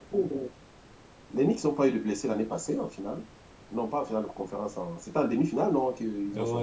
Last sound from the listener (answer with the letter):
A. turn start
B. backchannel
A